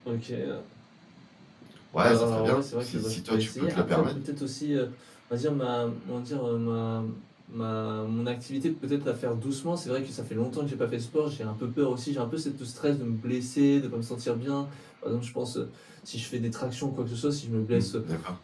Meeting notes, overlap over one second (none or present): present